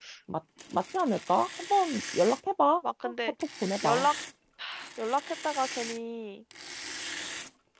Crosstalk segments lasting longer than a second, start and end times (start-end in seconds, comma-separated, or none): none